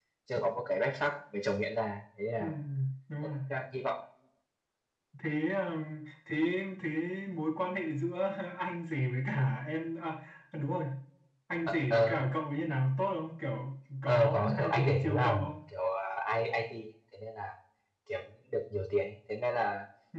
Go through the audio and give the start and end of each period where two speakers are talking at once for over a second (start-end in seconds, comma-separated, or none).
14.1-15.5